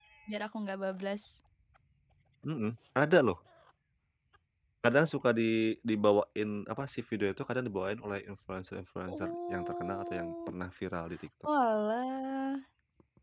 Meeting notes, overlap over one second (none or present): present